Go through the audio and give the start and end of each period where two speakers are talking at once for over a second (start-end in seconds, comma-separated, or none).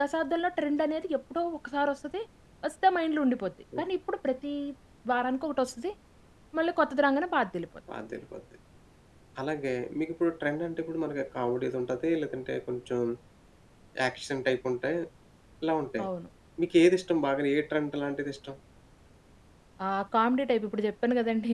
none